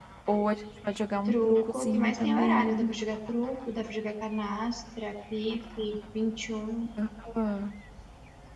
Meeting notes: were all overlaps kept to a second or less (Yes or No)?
No